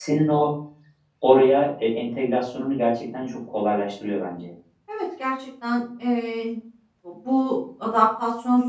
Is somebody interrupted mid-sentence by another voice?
No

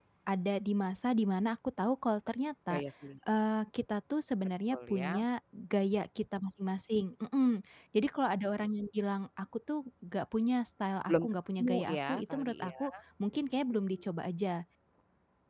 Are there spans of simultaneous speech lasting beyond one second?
Yes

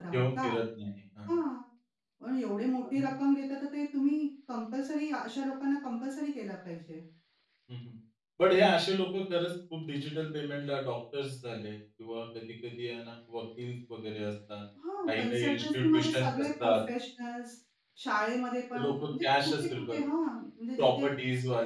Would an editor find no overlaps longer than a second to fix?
No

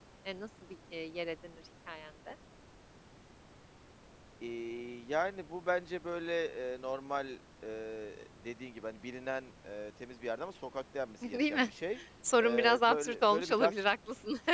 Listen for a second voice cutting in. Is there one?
Yes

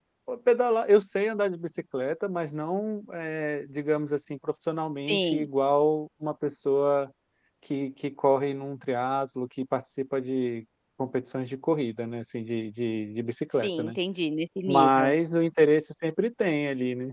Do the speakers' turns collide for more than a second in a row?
No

